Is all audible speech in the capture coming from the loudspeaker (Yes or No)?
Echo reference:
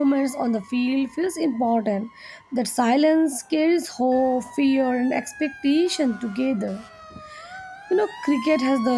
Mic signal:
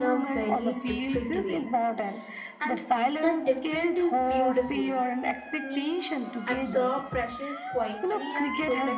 No